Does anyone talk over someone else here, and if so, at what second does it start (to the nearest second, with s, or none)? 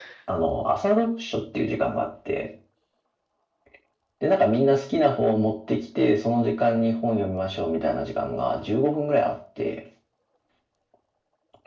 none